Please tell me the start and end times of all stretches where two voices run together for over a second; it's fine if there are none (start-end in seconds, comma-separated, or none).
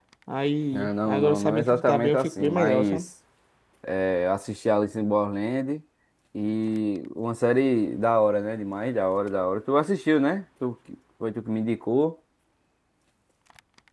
0.7-3.0